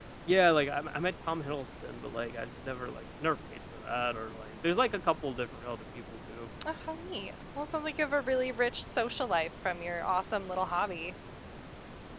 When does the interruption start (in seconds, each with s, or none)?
none